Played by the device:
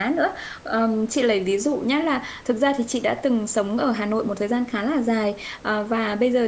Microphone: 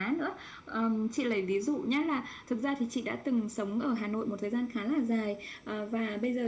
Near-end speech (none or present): none